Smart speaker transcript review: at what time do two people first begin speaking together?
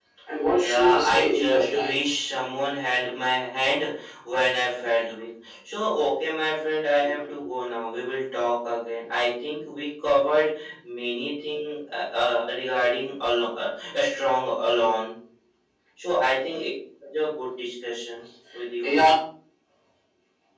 0.5 s

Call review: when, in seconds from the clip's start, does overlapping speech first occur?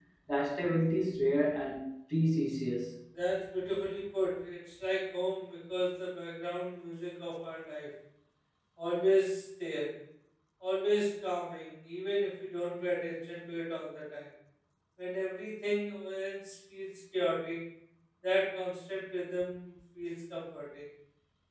none

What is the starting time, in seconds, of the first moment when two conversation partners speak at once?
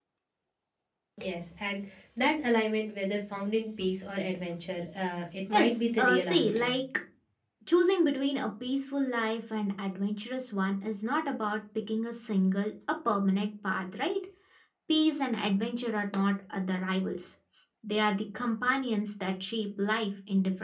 5.5 s

